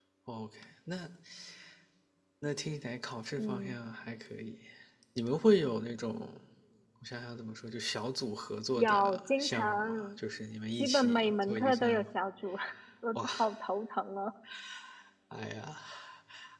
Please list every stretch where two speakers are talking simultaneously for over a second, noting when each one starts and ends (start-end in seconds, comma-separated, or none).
8.8-10.2, 10.8-12.1